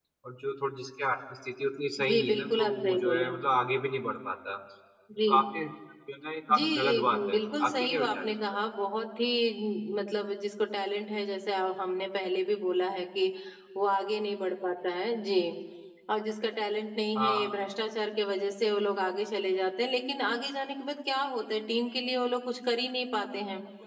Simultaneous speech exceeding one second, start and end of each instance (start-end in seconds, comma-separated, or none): 2.0-3.3, 6.6-8.3